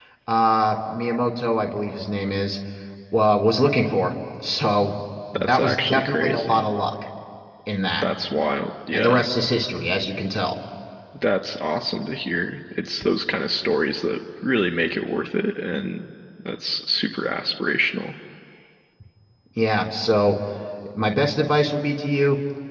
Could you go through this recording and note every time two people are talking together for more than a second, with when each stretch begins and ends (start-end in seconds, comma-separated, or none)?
5.3-6.6